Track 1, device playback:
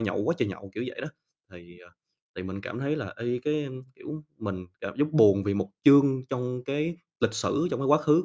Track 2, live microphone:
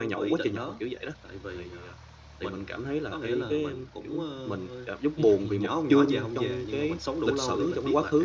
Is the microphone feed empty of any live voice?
No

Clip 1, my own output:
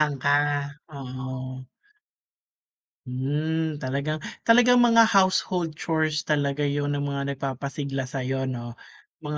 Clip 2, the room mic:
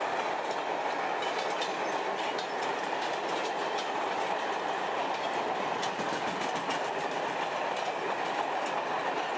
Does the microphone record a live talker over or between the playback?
No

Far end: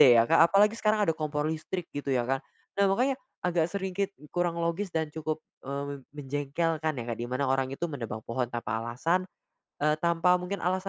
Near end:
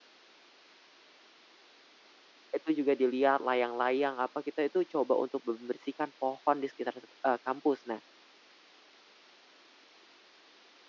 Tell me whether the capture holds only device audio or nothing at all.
No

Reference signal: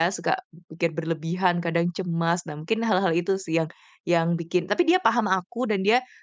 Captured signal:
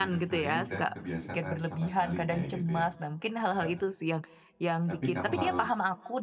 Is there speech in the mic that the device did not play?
Yes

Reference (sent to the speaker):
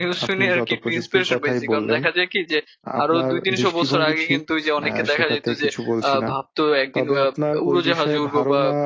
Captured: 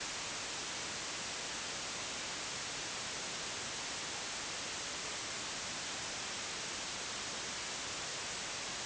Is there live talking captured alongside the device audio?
No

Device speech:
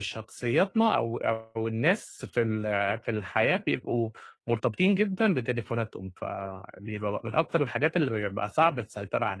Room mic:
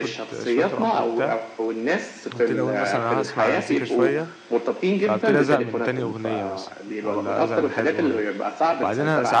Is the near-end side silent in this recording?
No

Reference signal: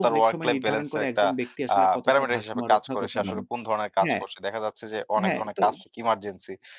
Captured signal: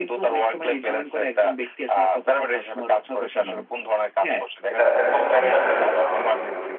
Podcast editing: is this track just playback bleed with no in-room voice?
No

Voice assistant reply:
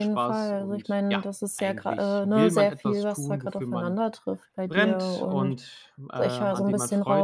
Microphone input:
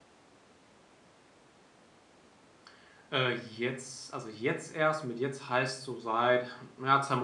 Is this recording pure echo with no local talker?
No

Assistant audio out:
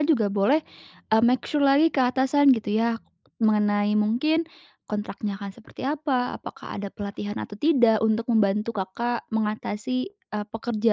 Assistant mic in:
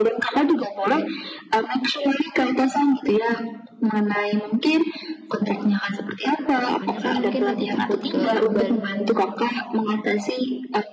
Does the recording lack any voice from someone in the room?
No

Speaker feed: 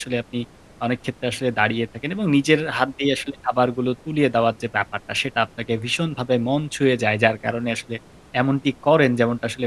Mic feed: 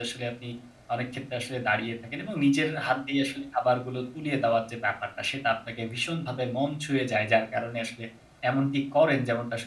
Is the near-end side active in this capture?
No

